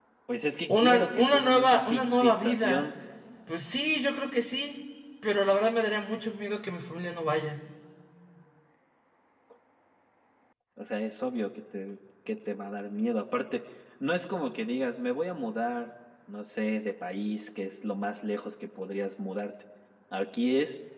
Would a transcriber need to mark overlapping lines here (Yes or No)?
Yes